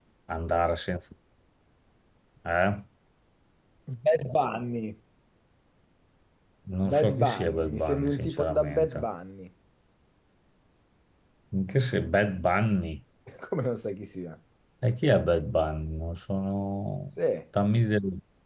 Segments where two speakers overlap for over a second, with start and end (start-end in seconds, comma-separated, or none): 6.8-9.1